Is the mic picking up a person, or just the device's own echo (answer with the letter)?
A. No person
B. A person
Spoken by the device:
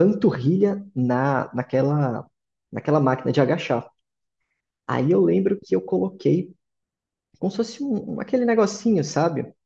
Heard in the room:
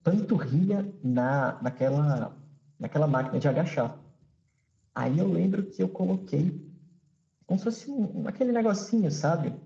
A